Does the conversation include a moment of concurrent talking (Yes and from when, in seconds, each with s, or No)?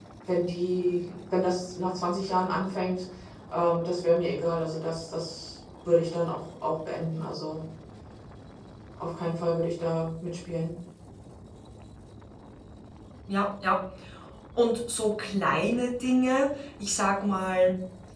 No